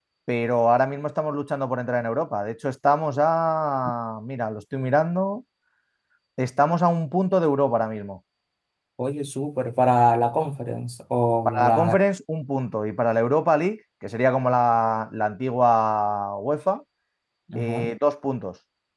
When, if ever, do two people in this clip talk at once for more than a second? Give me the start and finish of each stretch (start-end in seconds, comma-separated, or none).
none